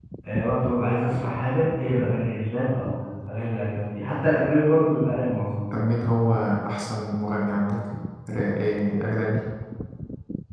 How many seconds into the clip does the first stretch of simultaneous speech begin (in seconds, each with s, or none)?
none